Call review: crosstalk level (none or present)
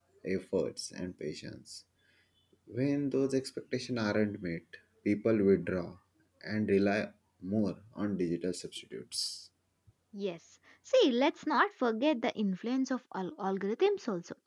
none